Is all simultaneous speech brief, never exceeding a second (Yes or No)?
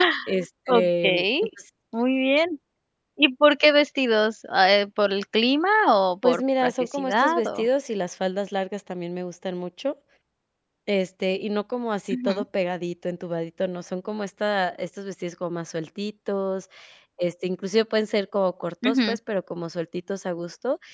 No